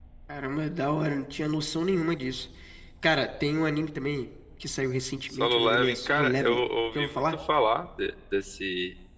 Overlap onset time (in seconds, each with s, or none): 5.3 s